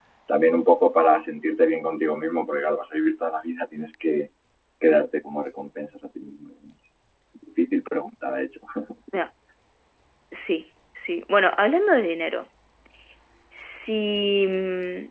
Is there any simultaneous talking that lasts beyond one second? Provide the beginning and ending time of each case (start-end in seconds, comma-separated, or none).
none